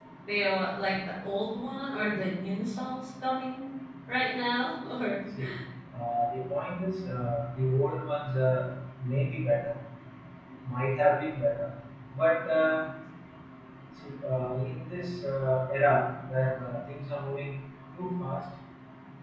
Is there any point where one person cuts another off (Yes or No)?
No